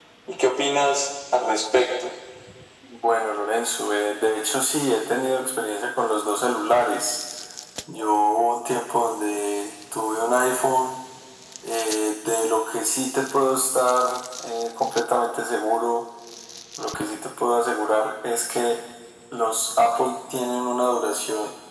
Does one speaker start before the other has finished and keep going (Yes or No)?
No